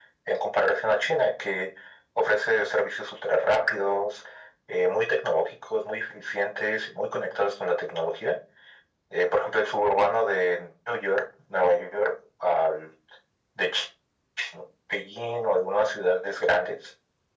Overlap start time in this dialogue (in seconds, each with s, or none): none